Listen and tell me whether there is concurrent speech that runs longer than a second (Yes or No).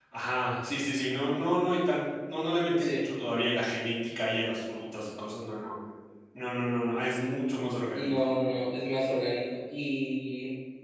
No